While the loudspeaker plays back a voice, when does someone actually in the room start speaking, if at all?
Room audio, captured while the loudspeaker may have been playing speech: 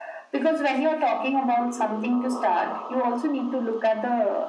none

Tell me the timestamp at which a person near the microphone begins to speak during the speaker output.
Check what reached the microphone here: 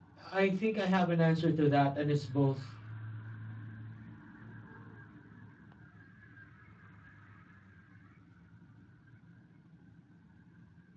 0.3 s

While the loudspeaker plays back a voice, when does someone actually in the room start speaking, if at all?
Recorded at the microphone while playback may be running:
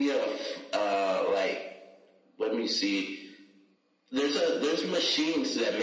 none

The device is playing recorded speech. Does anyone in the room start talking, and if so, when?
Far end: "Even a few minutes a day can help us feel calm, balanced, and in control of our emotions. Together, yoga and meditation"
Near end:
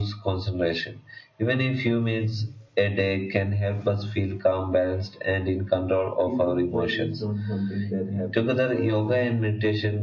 6.2 s

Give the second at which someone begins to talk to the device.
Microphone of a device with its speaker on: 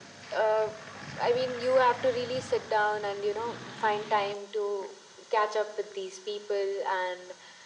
none

